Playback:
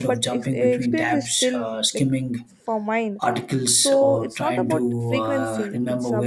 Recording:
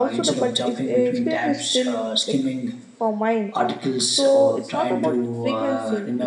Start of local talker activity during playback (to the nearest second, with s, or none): none